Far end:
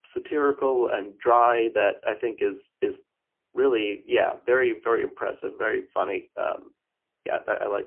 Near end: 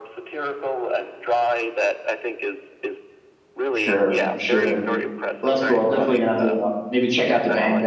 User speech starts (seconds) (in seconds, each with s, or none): 3.7 s